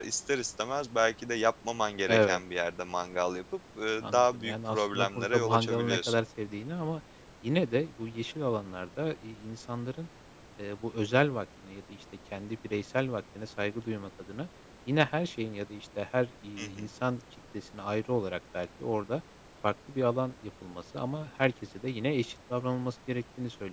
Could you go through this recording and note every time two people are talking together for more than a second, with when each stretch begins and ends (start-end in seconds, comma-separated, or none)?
4.0-6.2